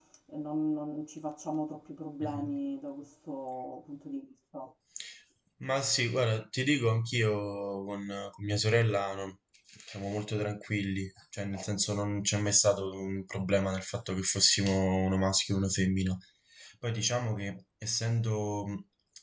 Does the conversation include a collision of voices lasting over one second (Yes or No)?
No